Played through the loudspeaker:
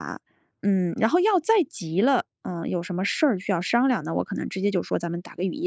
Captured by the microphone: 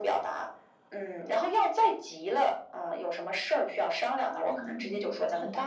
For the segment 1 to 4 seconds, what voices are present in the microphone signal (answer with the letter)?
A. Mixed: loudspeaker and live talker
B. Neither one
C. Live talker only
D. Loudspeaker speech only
D